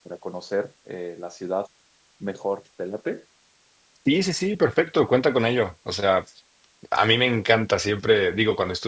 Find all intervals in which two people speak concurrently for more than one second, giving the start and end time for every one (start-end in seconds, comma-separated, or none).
none